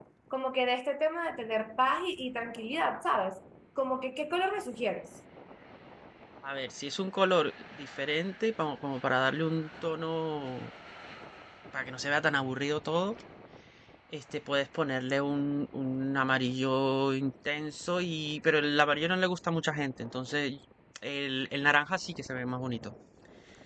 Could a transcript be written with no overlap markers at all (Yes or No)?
Yes